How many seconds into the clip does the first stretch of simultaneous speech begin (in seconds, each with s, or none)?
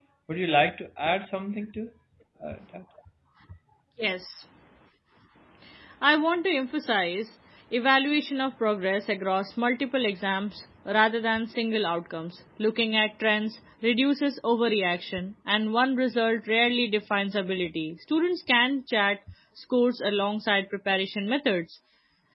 none